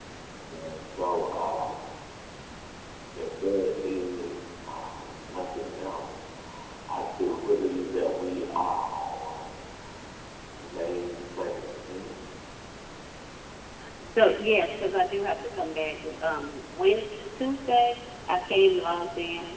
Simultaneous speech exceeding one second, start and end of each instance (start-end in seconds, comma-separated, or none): none